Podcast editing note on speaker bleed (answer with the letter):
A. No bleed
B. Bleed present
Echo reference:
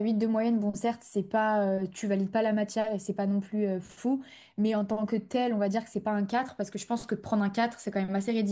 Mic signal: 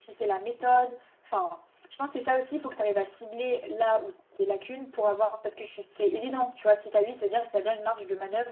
A